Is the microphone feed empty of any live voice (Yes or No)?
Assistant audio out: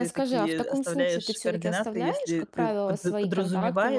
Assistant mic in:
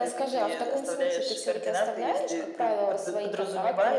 Yes